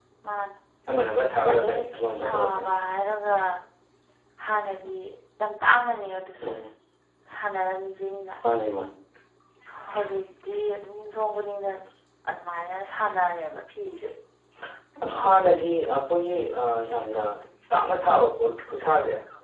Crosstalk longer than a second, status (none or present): present